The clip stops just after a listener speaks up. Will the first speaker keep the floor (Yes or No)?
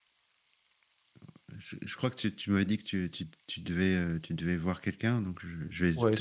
No